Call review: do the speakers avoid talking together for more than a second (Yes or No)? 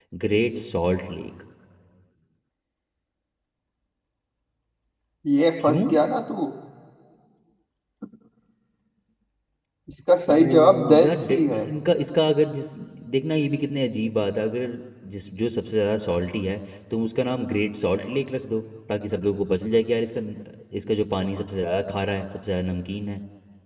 No